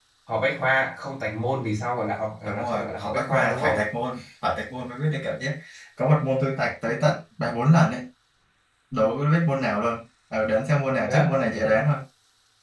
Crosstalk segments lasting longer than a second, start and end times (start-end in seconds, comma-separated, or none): 2.5-3.9